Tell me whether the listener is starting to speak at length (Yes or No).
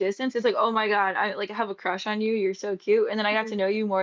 No